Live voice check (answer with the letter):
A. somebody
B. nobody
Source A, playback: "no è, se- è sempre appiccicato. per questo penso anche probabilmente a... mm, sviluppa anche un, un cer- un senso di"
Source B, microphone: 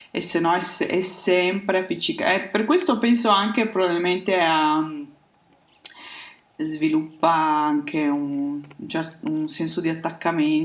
B